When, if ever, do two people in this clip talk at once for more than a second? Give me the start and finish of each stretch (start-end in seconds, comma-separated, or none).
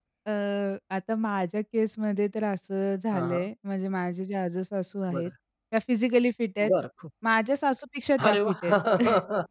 none